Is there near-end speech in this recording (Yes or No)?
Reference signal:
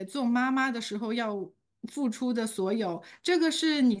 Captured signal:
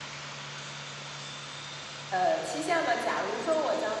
Yes